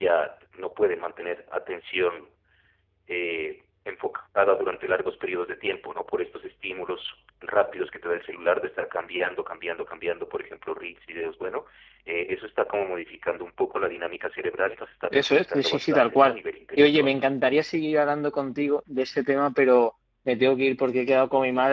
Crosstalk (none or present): present